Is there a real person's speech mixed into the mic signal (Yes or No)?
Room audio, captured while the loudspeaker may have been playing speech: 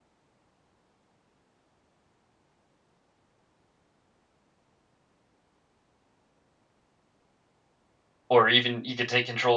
Yes